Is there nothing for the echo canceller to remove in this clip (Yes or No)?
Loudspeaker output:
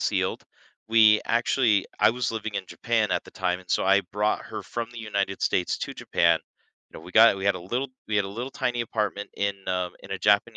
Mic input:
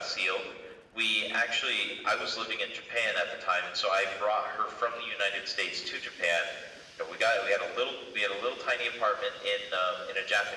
No